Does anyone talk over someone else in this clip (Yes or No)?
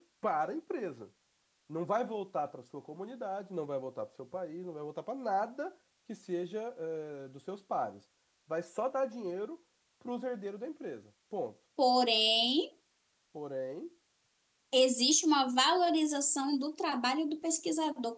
No